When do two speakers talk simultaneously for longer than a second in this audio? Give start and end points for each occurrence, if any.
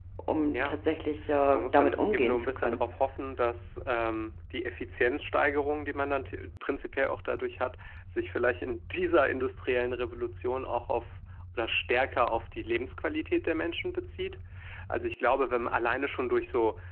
1.5-2.8

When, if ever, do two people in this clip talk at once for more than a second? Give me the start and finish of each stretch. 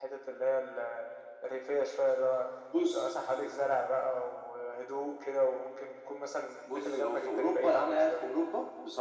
6.7-8.3

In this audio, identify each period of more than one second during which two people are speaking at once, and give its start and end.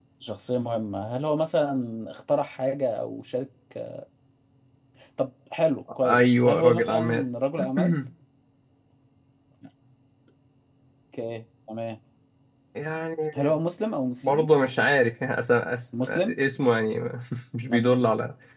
6.0-7.2

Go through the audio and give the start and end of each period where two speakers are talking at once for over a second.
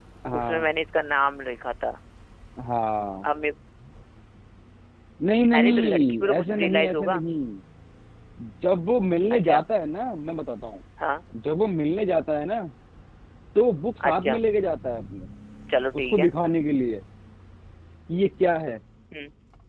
5.5-7.2

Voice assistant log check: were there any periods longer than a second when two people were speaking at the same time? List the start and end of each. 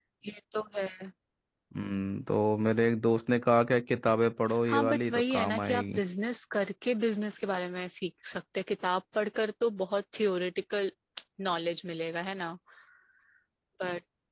4.7-6.0

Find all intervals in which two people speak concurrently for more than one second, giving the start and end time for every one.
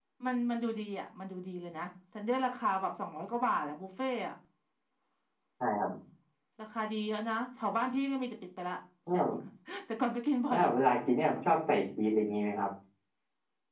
none

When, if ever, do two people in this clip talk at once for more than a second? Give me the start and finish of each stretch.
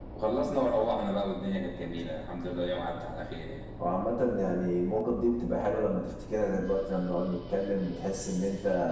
none

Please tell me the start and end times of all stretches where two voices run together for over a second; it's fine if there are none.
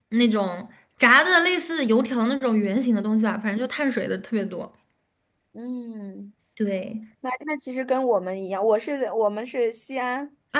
none

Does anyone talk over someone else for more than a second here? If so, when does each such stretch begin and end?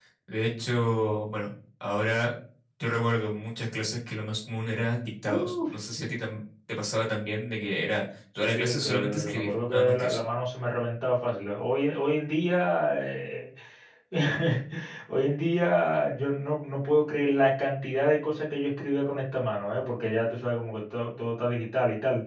8.4-10.2

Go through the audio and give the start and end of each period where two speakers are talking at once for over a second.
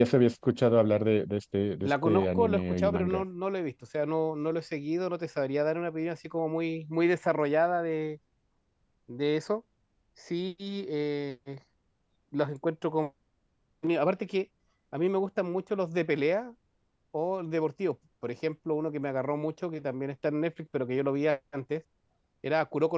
1.8-3.2

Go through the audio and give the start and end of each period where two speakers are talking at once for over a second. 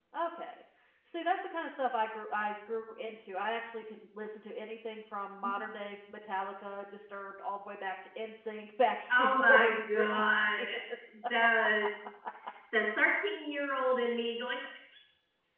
9.1-10.7

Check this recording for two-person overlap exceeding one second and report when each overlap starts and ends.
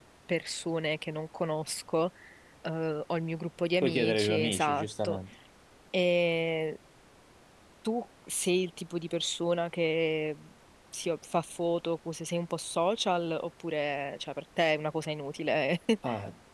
3.8-5.2

